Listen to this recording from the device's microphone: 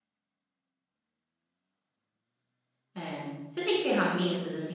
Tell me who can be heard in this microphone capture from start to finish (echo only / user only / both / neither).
user only